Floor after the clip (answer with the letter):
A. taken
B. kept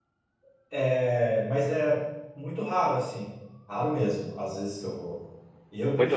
B